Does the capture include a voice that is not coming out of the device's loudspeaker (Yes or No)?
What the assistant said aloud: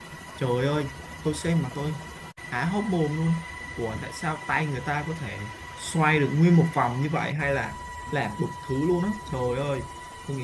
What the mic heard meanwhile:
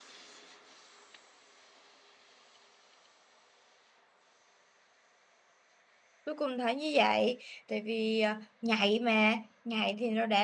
Yes